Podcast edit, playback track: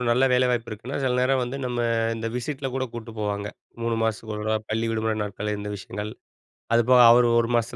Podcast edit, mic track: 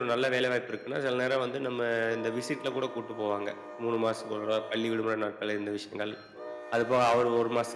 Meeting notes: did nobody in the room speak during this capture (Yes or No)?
Yes